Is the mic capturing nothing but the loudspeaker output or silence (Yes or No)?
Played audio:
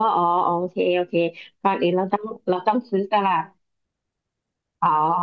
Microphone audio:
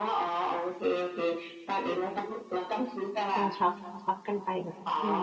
No